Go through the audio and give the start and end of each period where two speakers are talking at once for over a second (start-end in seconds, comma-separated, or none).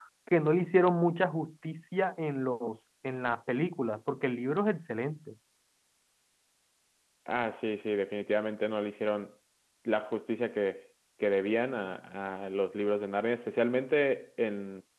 none